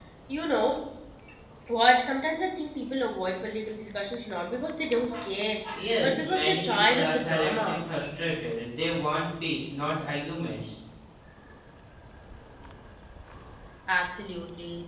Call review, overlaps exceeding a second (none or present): present